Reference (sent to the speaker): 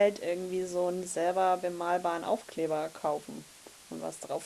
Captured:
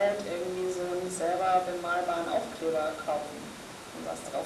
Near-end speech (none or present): none